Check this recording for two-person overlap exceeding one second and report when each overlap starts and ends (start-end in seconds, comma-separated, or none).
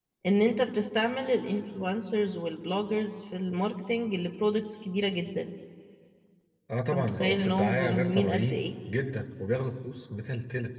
6.9-8.6